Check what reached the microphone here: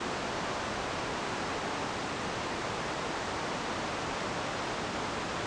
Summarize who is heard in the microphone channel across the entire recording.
neither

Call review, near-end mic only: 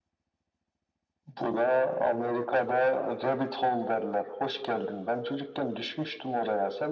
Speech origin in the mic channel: echo only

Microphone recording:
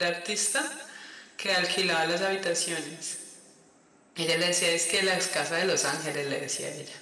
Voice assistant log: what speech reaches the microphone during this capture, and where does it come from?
user only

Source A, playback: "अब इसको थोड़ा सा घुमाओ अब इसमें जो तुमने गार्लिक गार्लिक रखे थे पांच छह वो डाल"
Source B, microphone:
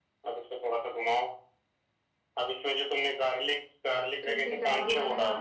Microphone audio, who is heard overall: both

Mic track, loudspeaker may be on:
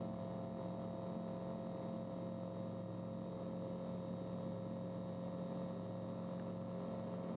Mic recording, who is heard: neither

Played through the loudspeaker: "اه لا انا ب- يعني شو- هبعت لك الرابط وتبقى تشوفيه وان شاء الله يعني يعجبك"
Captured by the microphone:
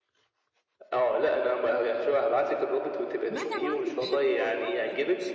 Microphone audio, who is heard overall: both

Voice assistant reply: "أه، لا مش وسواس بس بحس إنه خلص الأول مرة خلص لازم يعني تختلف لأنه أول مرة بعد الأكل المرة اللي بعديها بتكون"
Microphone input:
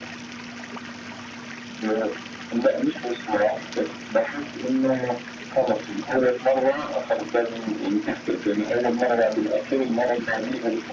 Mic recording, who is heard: echo only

